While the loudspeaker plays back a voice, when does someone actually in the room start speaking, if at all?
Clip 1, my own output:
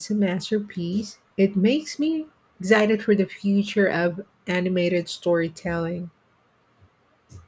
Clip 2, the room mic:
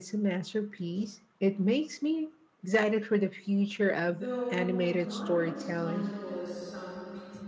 4.0 s

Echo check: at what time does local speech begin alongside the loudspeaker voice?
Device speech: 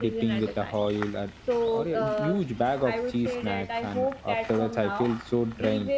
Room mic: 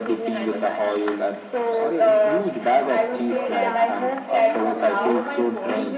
3.1 s

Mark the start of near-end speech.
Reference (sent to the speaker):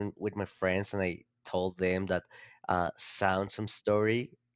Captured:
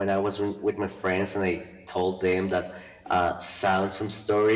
none

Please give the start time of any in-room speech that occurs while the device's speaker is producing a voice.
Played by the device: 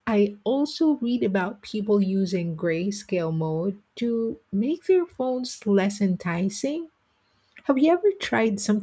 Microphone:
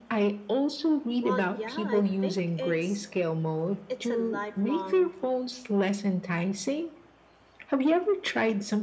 1.2 s

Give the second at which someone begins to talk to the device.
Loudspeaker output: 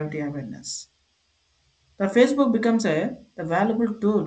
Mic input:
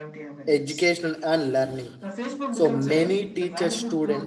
0.5 s

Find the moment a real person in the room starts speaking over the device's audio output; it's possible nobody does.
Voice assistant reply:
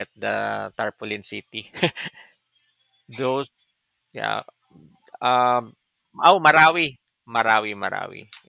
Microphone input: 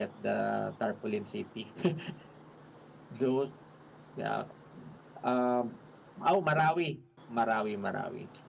none

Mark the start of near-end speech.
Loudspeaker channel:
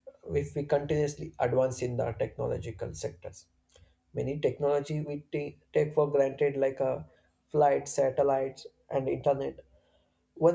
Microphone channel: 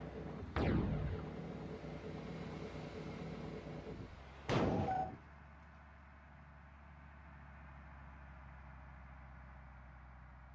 none

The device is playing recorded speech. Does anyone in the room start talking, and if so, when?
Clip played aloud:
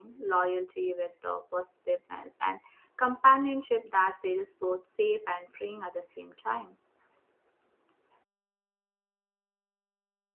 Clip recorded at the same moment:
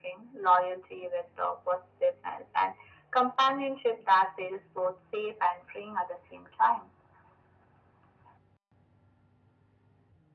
none

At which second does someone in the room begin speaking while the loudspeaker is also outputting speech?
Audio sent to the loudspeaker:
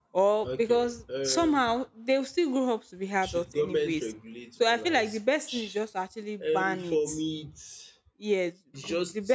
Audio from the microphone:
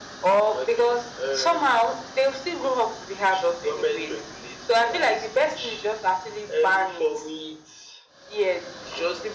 none

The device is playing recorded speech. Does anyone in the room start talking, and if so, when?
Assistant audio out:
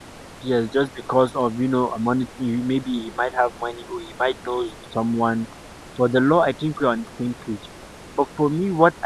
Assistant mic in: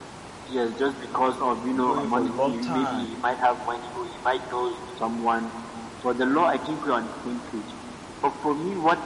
1.7 s

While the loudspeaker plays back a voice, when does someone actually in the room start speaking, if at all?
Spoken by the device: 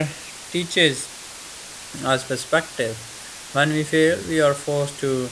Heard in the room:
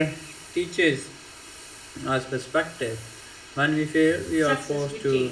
4.4 s

